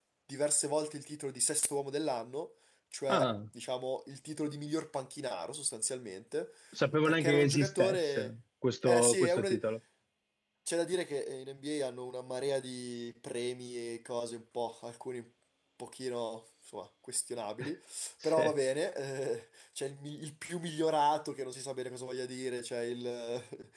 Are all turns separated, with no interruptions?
No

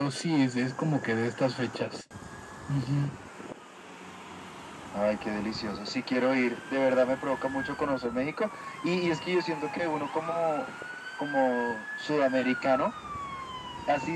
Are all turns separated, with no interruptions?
Yes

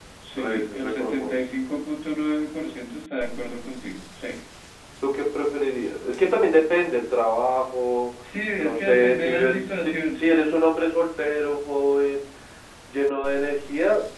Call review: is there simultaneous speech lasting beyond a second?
Yes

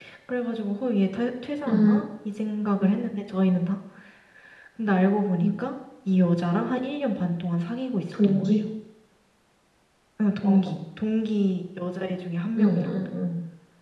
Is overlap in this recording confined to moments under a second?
Yes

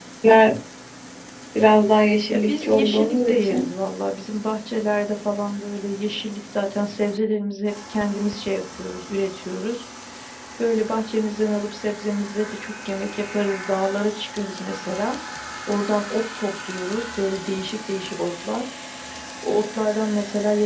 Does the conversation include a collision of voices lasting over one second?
Yes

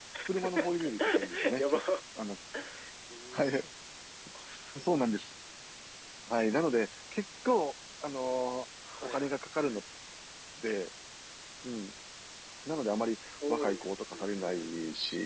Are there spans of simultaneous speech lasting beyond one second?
Yes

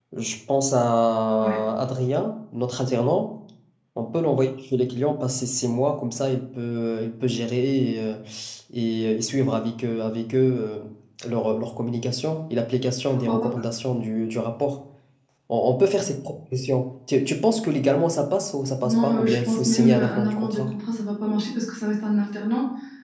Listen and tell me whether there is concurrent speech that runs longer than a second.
Yes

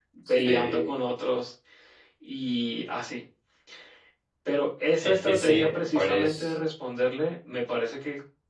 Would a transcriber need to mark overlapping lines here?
Yes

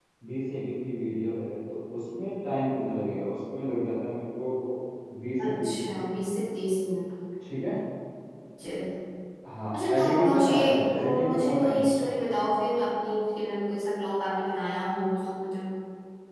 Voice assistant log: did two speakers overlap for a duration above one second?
Yes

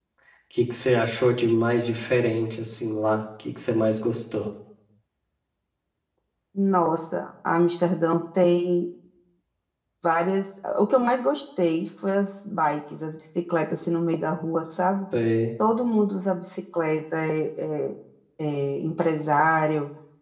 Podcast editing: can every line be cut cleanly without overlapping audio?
Yes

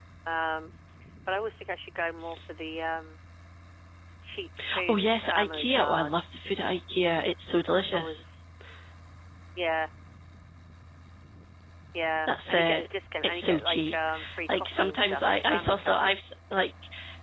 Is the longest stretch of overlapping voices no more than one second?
No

